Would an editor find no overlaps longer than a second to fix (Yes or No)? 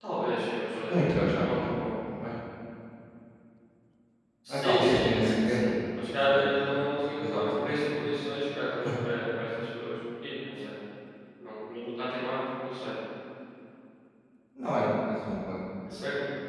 No